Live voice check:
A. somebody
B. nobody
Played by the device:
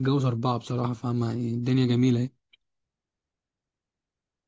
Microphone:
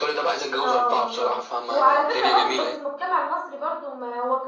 A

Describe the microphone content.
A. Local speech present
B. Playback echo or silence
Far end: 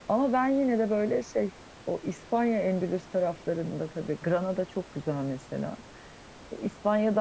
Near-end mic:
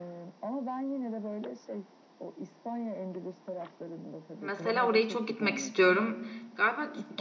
A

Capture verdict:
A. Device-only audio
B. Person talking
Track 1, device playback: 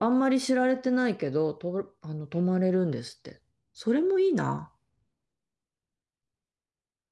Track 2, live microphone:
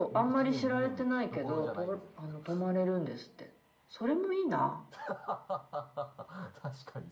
B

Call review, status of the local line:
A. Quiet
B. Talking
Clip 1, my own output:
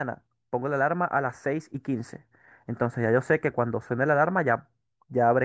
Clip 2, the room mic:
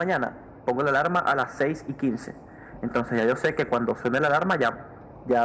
A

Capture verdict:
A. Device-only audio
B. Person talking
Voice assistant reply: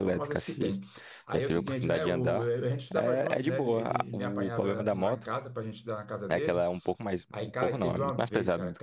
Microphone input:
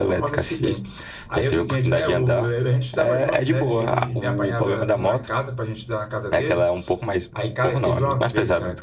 A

